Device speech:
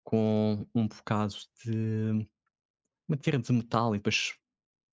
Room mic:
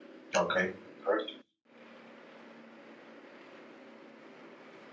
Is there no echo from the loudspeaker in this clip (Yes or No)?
Yes